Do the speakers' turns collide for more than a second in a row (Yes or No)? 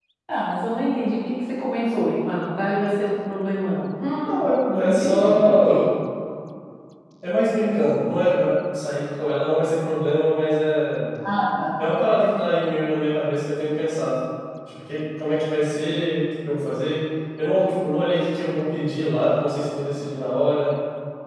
Yes